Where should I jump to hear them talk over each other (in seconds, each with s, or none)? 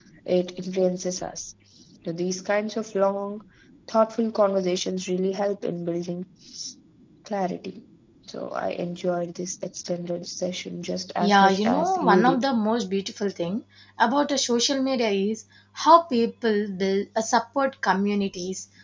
11.2 s